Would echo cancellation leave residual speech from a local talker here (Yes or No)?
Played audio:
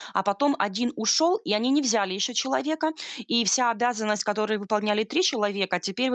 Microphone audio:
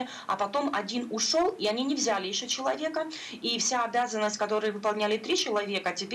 No